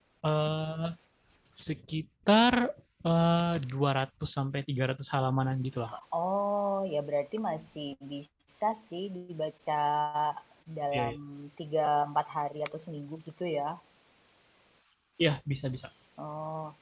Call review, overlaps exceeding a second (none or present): none